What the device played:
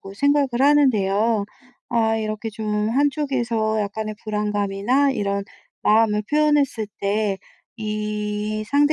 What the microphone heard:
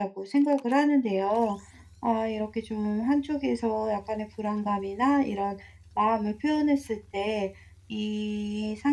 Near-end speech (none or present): none